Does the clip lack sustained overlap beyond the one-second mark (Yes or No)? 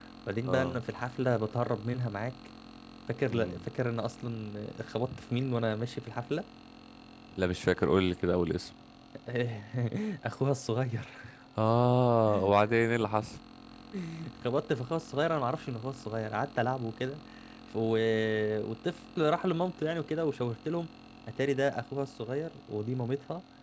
Yes